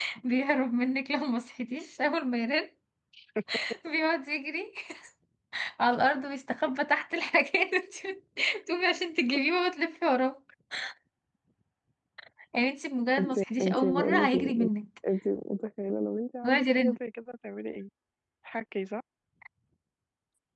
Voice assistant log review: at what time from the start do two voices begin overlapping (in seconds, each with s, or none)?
13.2 s